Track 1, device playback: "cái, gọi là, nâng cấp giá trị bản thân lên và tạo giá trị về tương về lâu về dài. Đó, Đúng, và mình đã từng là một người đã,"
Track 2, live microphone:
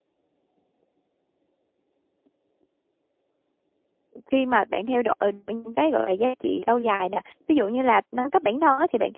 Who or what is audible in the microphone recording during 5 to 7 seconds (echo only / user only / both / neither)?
user only